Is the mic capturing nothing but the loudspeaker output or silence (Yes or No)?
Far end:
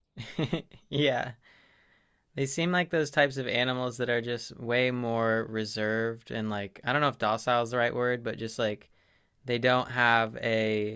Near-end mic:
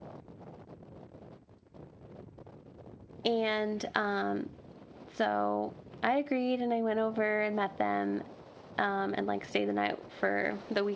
No